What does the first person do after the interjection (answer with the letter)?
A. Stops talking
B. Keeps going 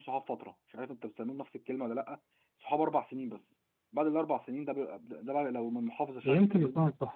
A